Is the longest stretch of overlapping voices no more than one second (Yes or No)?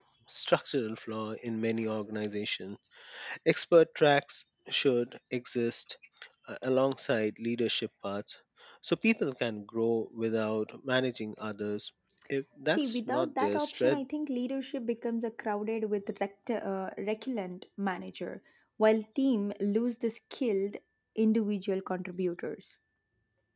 No